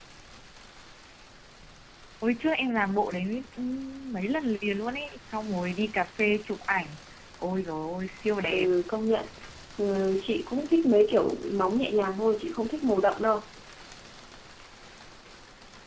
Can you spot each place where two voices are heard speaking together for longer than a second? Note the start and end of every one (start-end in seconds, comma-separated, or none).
none